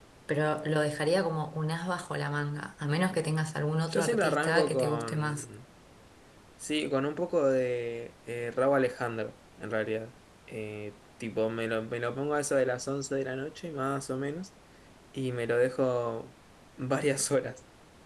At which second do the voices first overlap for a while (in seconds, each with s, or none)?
3.9 s